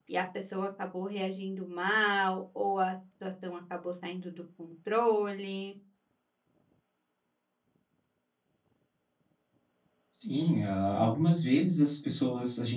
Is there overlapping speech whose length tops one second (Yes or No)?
No